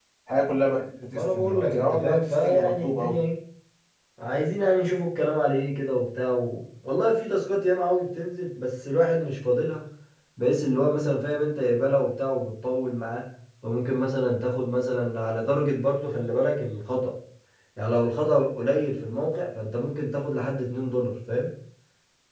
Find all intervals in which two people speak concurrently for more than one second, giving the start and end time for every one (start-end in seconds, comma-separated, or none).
1.1-3.2